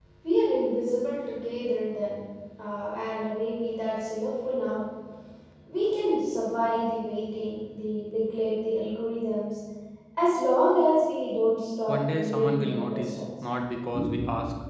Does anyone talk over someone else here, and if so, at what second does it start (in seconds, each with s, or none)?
11.9 s